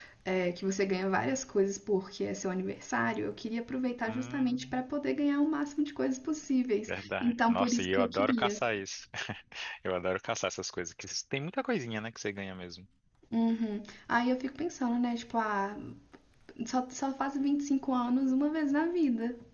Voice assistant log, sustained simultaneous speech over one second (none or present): present